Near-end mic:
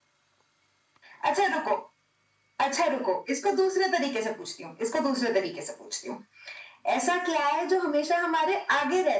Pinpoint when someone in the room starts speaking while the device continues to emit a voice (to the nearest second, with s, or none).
none